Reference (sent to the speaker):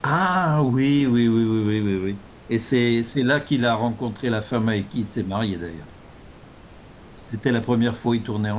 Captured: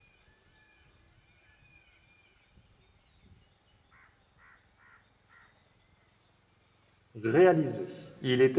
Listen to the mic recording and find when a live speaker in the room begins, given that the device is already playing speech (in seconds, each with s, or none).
7.2 s